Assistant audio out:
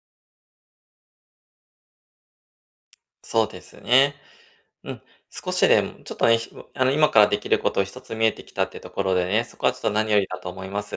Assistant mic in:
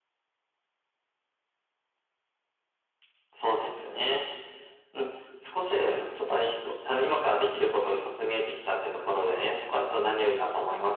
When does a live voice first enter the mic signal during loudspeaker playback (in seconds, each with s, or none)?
none